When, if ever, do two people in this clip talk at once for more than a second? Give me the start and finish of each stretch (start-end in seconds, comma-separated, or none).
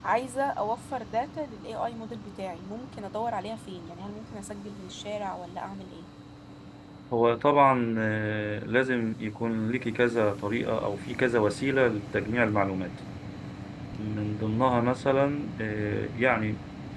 none